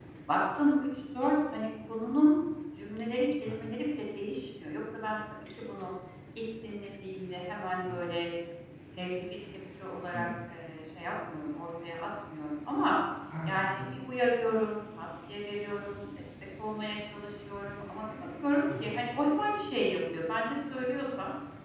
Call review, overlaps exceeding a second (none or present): none